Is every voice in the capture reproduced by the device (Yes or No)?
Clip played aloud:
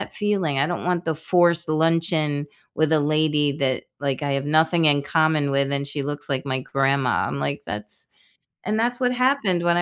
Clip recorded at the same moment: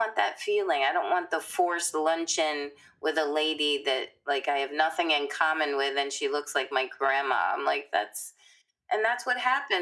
Yes